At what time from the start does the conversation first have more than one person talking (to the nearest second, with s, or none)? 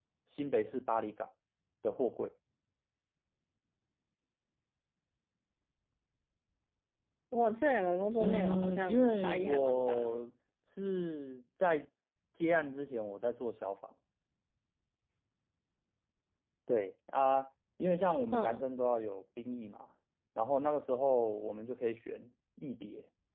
8 s